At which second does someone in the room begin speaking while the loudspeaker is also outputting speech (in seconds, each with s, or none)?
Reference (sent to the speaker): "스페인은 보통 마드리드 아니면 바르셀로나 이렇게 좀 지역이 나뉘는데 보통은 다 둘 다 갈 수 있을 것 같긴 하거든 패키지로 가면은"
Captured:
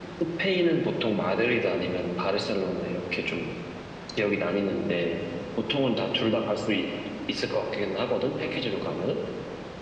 none